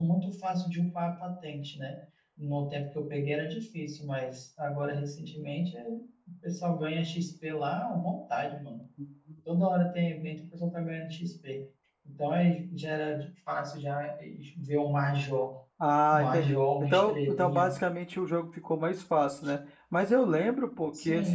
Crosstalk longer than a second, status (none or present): present